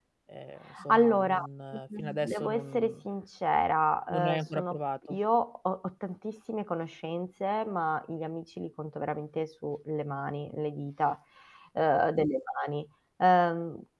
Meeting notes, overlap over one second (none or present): present